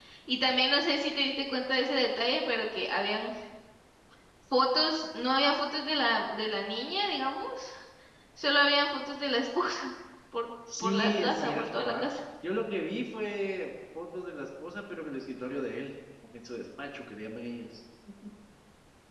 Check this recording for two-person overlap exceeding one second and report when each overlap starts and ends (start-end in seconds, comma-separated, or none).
10.8-12.0